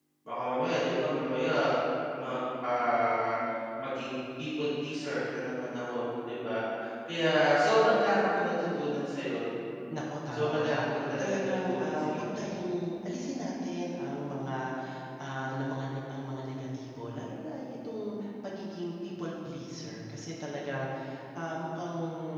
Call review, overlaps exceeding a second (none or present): present